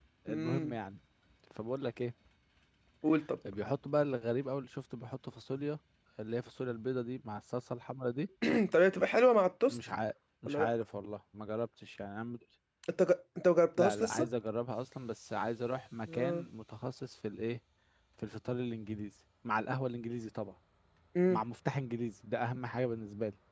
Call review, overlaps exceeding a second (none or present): none